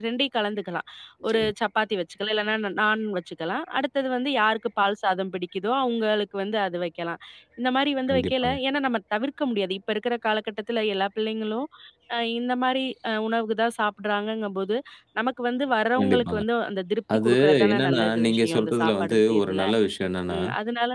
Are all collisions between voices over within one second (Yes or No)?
No